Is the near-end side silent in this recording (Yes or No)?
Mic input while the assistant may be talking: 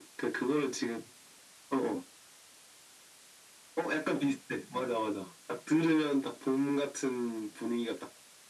Yes